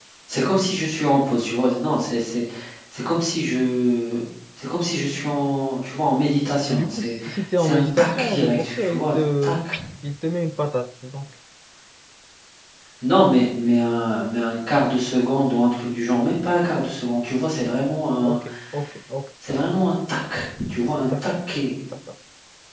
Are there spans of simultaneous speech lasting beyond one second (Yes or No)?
Yes